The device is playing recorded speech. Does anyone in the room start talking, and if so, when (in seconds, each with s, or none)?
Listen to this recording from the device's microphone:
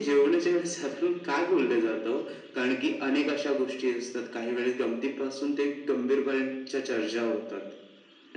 none